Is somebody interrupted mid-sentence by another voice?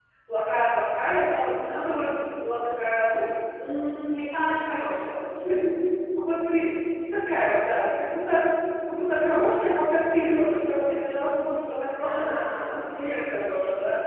Yes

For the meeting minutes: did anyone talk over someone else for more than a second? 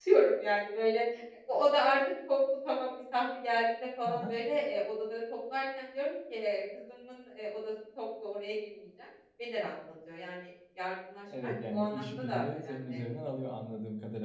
Yes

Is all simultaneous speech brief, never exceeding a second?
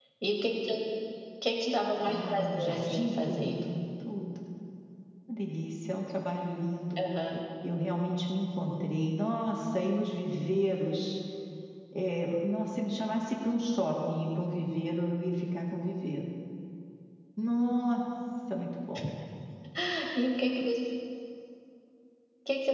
No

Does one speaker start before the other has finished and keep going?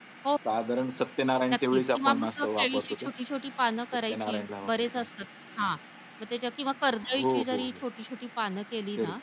Yes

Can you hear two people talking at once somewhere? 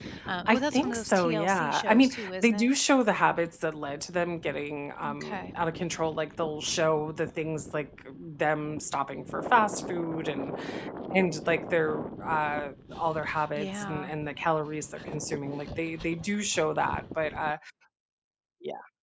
Yes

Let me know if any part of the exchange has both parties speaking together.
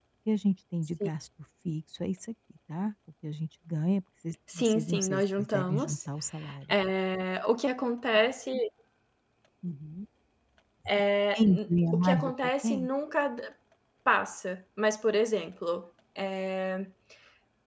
Yes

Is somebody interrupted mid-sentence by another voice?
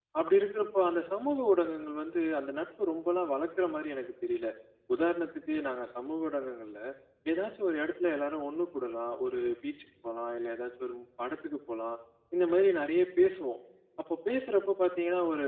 No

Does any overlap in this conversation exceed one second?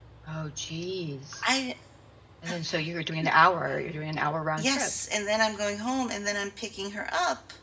No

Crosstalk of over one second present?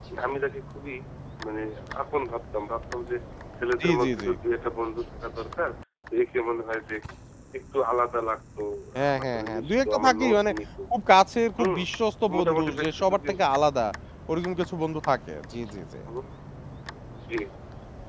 Yes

